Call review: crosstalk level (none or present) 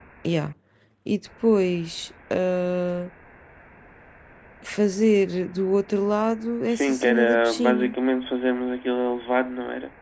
present